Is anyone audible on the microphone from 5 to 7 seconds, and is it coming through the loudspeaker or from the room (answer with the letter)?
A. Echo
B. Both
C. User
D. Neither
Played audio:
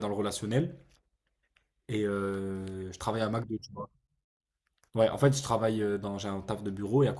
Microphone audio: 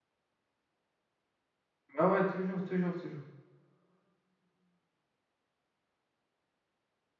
D